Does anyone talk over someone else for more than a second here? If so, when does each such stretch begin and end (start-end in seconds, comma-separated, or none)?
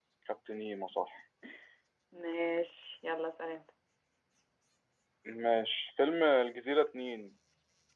none